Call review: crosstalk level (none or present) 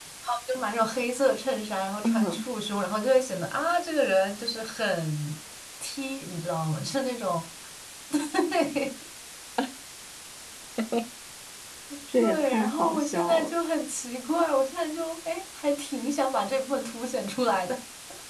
present